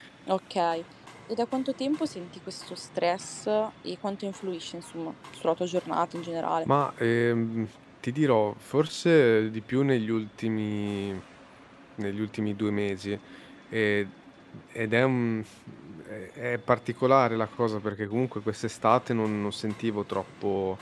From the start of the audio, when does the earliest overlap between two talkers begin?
none

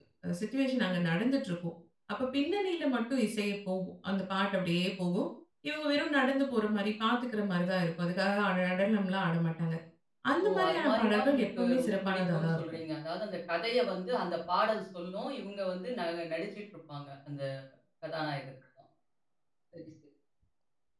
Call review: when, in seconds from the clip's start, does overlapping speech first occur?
10.4 s

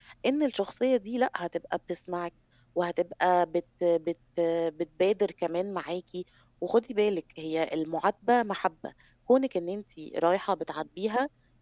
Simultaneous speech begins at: none

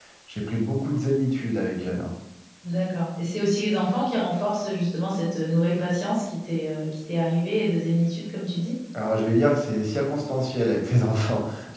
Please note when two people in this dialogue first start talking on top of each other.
none

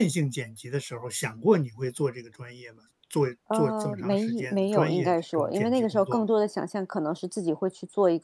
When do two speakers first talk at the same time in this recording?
3.5 s

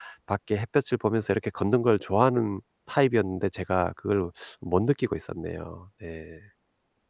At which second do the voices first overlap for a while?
none

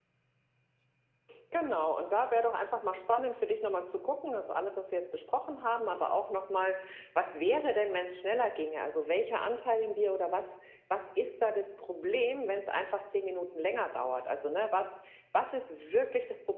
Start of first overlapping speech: none

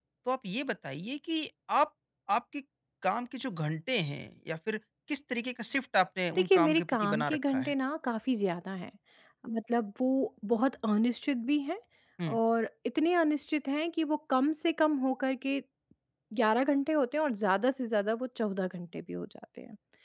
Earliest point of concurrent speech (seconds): 6.4 s

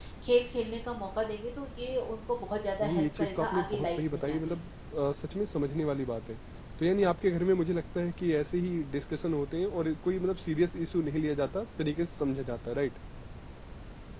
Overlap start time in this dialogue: 2.8 s

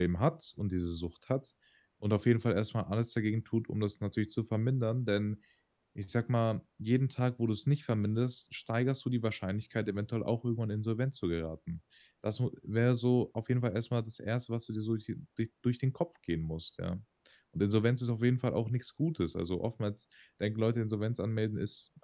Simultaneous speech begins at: none

